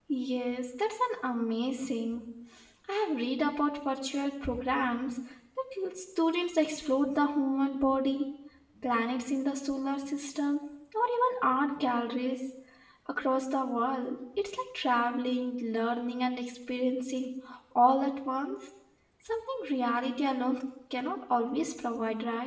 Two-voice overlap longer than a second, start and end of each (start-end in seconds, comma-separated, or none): none